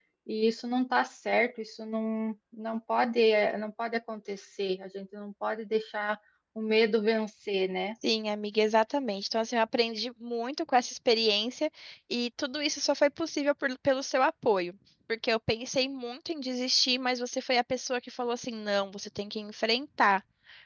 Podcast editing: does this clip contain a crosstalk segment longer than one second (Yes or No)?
No